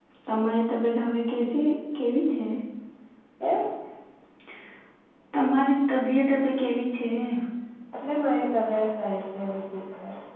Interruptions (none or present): none